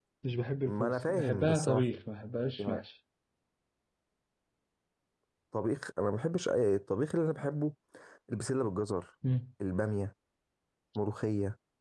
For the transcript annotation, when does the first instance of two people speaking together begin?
1 s

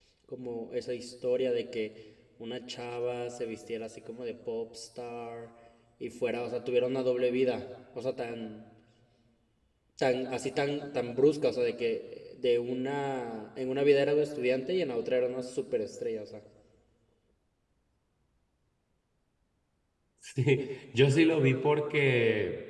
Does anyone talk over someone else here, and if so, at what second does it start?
none

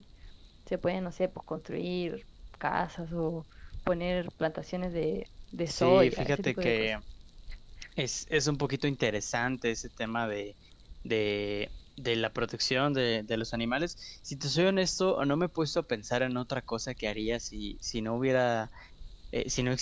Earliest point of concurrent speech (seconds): 6 s

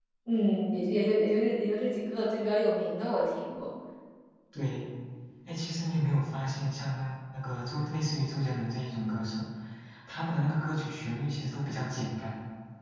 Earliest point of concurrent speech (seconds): none

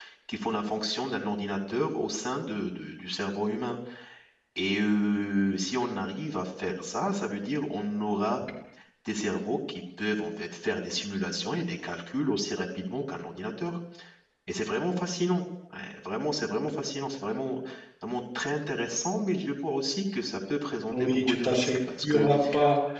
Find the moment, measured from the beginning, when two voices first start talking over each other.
21 s

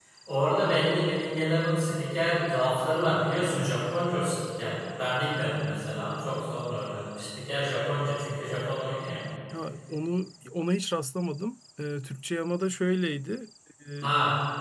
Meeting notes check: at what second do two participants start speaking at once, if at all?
none

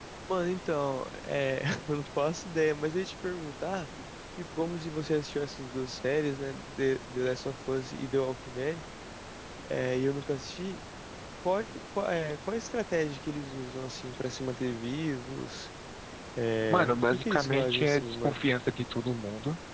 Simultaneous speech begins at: 17 s

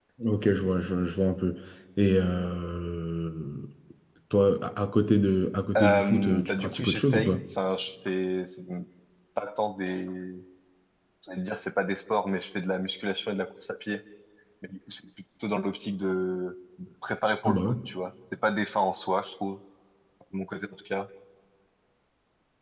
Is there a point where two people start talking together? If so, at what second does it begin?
6 s

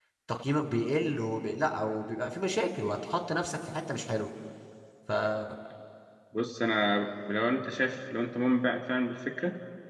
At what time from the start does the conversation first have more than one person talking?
none

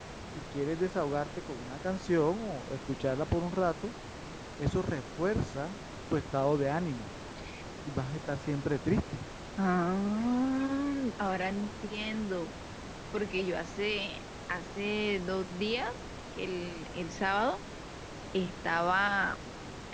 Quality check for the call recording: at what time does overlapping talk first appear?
none

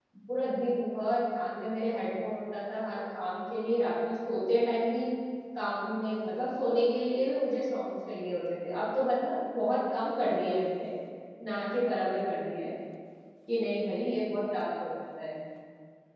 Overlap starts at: none

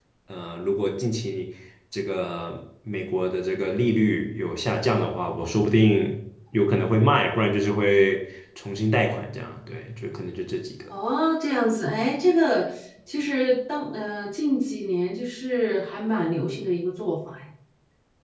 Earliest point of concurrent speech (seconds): none

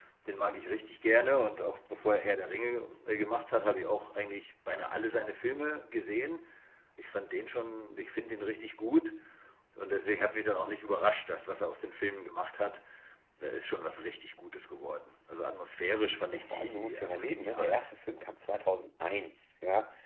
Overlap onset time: 16 s

